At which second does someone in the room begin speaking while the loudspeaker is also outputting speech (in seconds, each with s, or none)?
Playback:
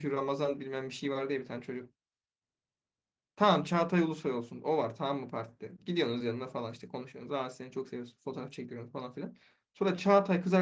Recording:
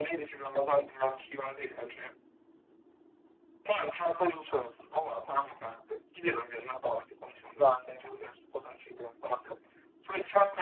none